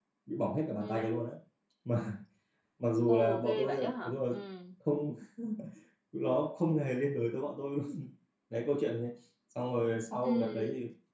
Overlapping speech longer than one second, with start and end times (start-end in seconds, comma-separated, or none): 3.1-4.4